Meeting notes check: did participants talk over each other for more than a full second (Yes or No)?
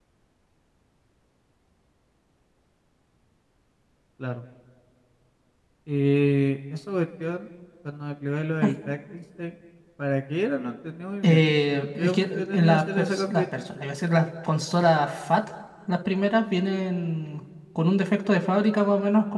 Yes